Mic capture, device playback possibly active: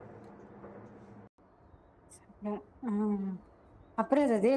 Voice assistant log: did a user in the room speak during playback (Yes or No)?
Yes